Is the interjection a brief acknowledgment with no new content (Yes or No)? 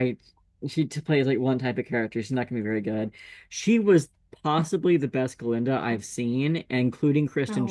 Yes